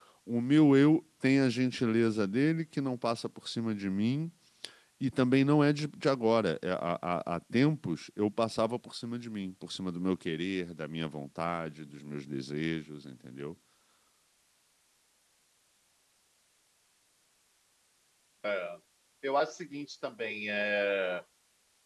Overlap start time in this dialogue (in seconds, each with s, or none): none